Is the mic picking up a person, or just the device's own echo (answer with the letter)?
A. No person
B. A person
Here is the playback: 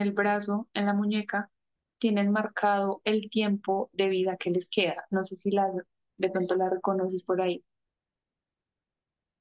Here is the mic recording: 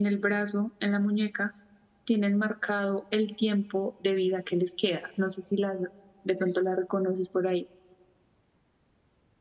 A